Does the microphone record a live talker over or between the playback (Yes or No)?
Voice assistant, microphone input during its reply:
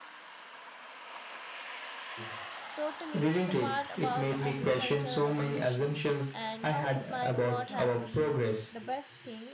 Yes